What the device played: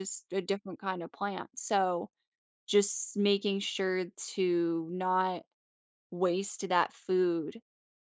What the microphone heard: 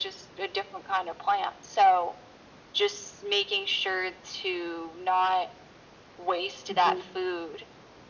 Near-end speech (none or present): present